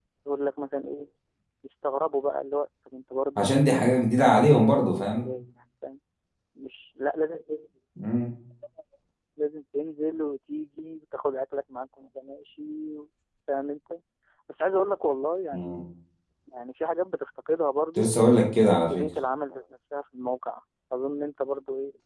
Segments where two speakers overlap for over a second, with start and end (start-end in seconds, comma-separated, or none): 4.0-5.2